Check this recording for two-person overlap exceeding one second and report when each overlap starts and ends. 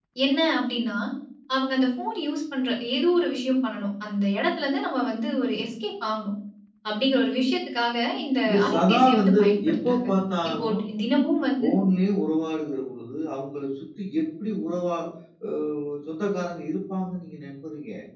8.4-10.1

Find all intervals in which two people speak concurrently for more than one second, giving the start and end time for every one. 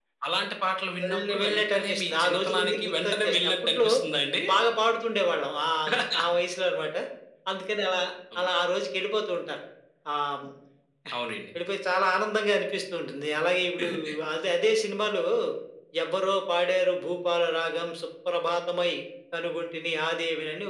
1.1-3.9

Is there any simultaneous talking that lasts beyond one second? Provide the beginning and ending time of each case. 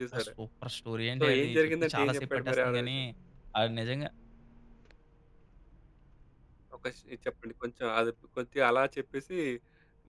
1.2-2.9

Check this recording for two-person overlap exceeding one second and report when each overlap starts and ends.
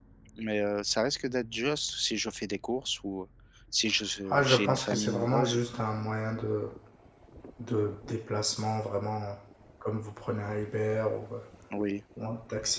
4.3-5.6

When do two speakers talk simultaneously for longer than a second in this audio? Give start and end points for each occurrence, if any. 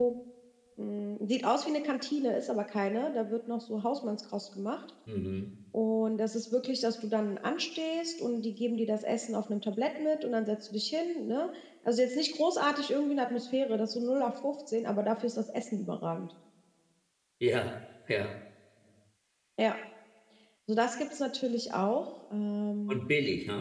none

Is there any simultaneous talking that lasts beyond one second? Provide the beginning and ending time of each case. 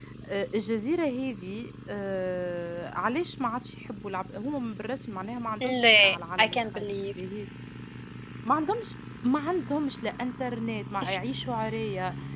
5.6-7.1

